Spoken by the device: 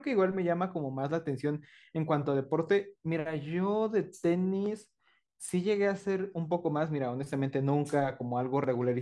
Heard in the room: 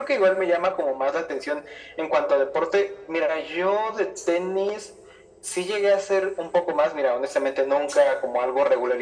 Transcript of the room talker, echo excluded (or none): none